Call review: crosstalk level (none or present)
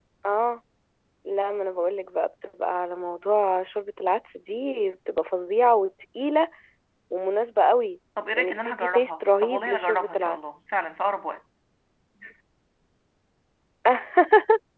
present